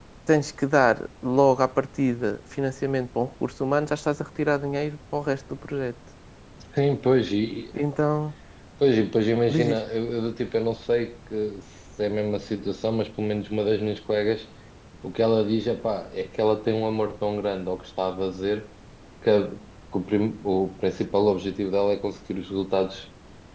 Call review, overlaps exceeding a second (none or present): none